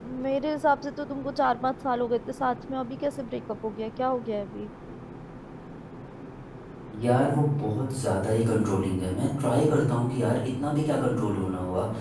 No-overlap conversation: Yes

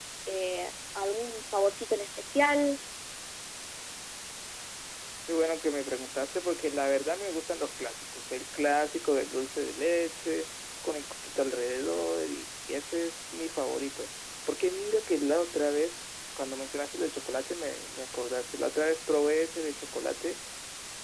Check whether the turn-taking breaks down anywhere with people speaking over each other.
No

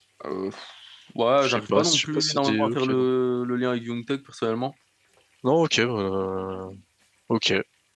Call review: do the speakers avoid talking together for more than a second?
No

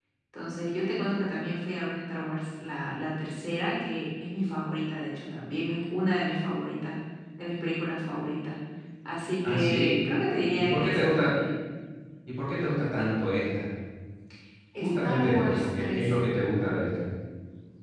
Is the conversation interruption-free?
No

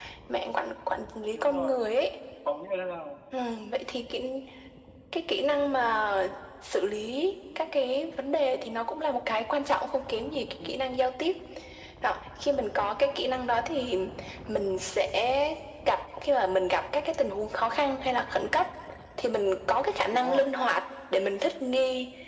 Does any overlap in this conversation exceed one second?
No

